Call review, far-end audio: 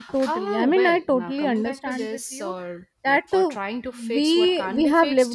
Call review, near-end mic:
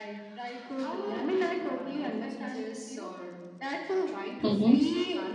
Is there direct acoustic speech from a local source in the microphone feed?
Yes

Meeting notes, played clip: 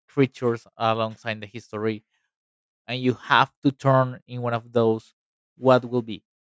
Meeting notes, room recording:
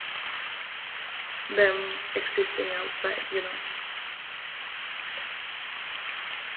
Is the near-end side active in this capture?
Yes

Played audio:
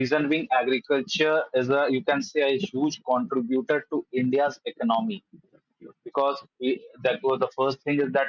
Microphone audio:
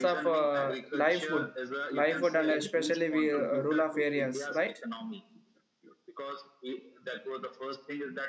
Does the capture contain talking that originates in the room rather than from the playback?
Yes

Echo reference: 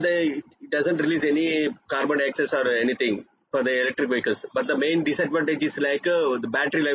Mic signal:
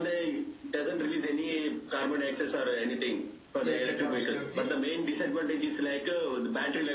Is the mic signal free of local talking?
No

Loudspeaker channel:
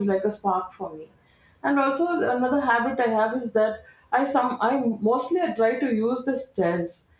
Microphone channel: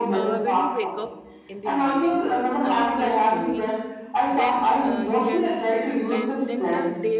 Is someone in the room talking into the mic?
Yes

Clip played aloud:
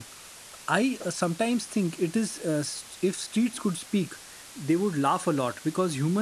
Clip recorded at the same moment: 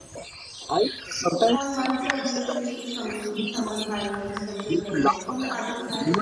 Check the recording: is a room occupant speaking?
Yes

